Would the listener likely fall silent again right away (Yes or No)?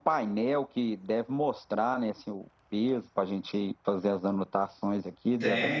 No